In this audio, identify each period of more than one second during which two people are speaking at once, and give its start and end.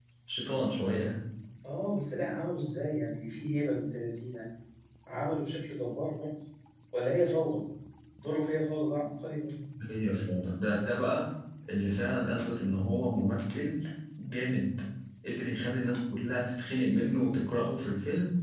none

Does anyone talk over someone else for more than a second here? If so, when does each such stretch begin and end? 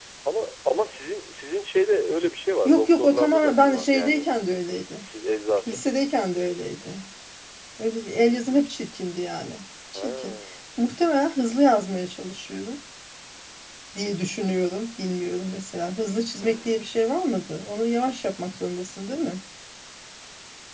2.6-4.3

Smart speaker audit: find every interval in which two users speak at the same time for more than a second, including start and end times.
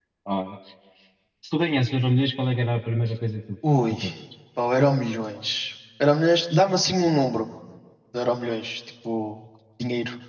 none

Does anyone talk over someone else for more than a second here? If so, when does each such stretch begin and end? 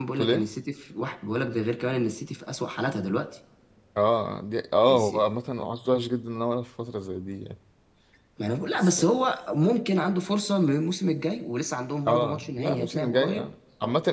12.1-13.5

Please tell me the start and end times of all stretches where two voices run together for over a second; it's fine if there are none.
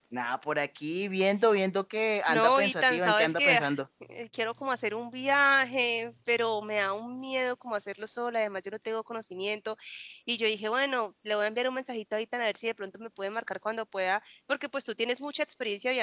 2.3-3.7

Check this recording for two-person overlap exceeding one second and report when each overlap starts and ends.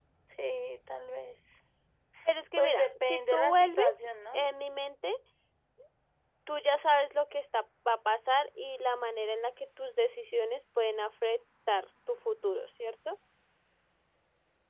2.6-3.9

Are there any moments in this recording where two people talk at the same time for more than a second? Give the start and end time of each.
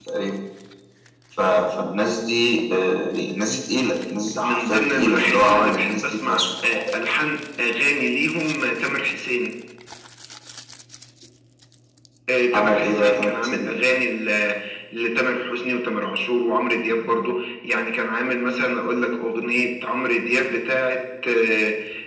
4.4-6.8, 12.5-13.8

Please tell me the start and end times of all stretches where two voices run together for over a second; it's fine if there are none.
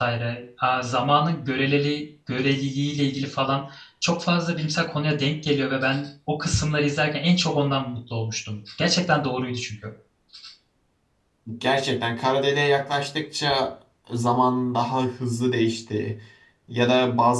none

